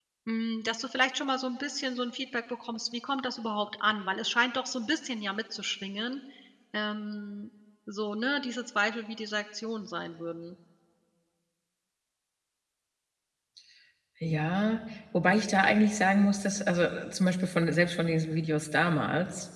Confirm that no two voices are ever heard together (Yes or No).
Yes